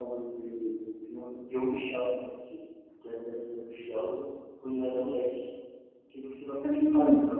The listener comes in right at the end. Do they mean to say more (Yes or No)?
No